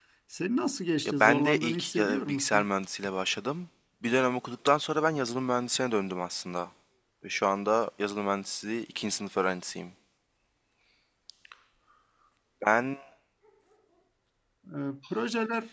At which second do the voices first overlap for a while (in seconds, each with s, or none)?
1.1 s